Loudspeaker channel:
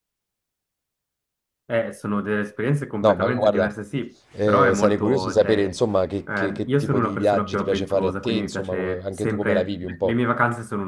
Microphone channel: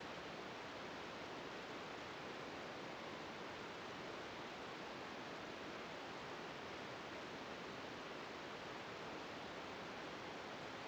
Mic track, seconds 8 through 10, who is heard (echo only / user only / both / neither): neither